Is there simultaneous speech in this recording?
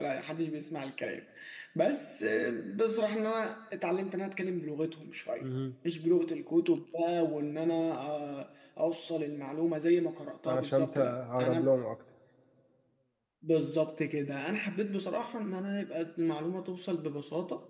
Yes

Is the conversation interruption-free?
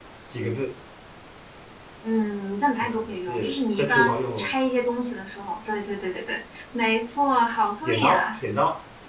No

